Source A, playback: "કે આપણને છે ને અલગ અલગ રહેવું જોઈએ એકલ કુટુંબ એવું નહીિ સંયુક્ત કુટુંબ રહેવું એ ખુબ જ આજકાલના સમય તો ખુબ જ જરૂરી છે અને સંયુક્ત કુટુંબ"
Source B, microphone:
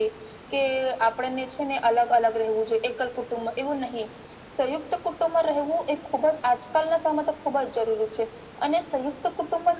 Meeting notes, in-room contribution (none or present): none